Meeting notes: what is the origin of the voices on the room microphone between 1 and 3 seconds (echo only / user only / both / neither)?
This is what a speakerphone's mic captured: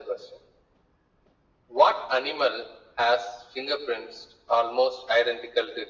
echo only